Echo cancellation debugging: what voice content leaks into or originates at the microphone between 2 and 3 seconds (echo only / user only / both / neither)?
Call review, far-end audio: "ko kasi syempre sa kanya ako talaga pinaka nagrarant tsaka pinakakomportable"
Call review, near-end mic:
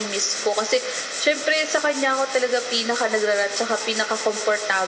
echo only